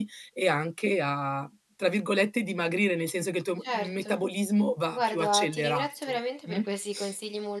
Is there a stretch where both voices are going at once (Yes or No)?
Yes